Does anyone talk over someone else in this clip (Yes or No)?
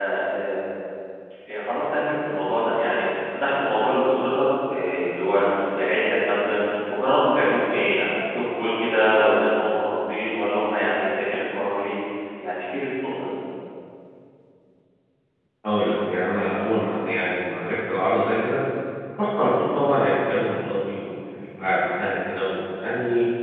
No